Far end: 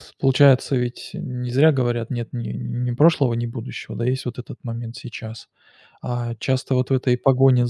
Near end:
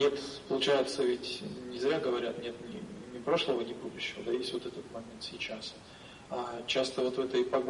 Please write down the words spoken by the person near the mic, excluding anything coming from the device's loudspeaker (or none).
none